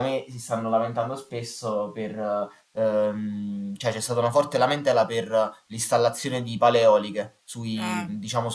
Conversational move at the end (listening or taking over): listening